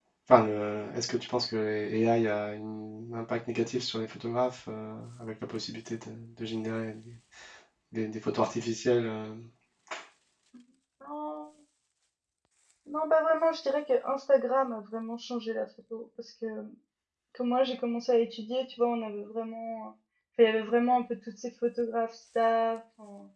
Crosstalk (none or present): none